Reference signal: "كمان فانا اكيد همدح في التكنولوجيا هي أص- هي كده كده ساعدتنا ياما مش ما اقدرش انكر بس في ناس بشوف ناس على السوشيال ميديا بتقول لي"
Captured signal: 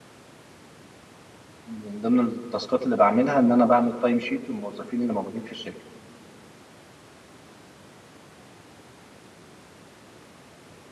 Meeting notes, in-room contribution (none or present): present